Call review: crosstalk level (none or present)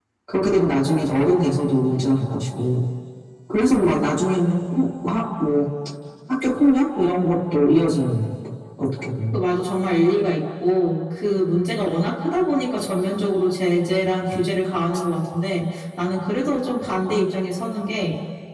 none